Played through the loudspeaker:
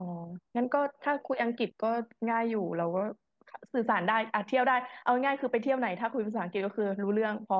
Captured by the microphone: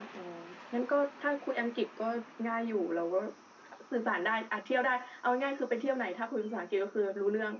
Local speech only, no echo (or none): none